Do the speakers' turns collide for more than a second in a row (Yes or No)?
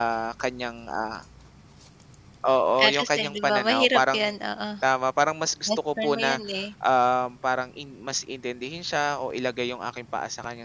Yes